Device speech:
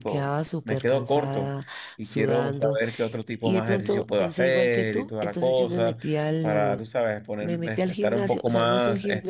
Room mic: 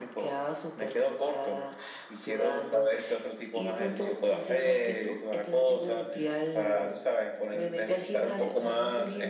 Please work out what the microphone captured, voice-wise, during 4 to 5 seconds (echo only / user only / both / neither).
echo only